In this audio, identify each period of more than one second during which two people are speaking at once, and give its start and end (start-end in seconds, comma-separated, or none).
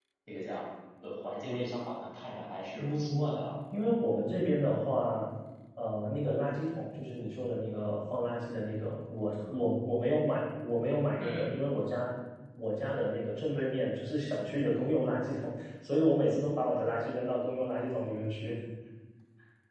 none